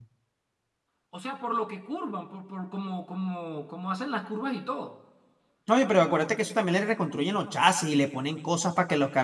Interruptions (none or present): none